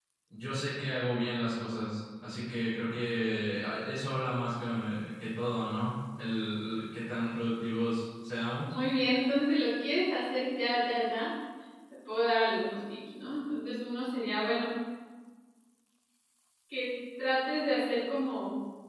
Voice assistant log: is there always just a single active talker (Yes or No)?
Yes